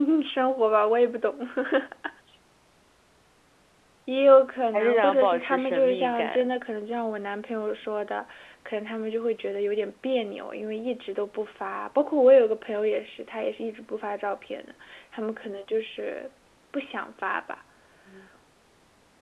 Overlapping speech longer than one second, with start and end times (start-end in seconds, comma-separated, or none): 4.7-6.5